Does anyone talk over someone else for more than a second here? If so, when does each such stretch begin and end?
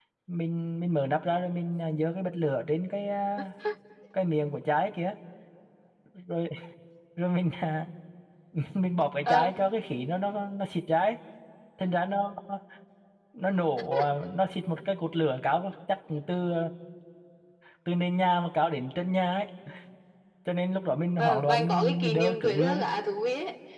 21.2-22.8

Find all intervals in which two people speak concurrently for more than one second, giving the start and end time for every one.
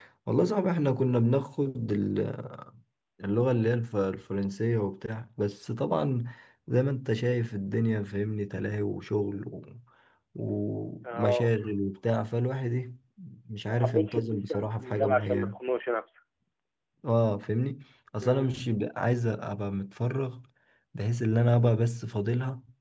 13.7-15.6

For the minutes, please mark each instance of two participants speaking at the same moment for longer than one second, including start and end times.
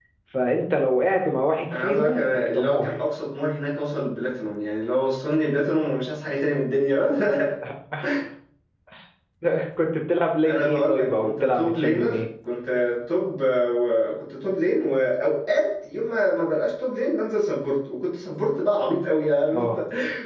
1.7-2.9, 10.4-12.2

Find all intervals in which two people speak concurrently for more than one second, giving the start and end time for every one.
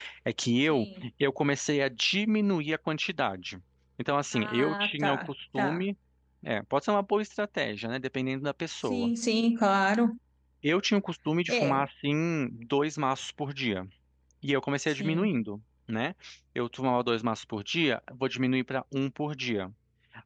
4.3-5.8

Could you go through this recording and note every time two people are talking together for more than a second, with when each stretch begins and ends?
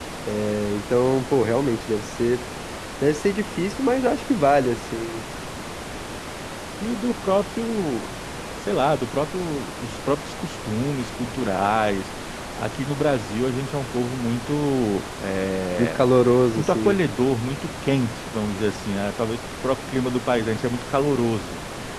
none

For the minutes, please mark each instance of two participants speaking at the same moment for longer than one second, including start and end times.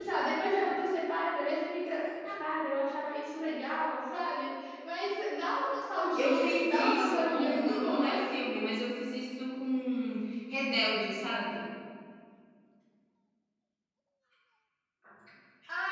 6.2-8.2

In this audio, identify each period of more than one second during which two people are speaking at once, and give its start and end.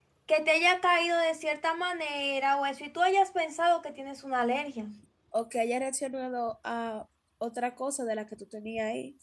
none

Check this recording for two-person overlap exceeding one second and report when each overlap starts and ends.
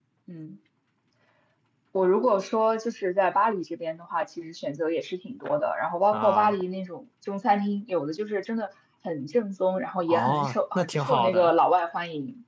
10.1-11.5

